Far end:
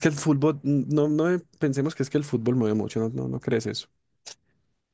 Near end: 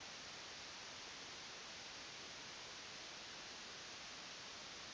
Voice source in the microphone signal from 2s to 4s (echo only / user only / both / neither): neither